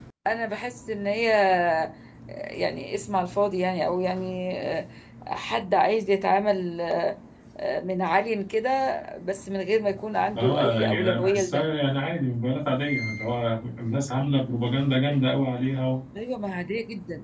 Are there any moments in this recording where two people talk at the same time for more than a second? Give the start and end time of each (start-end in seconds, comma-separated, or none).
10.4-11.6